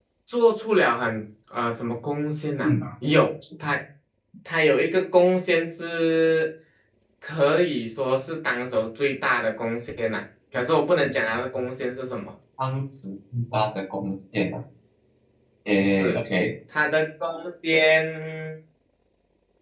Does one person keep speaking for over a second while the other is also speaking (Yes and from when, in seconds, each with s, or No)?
No